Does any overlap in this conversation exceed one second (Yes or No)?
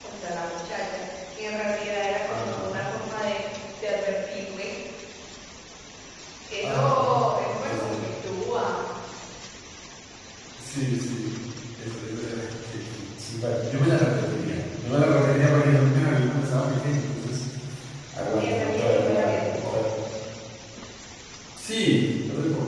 Yes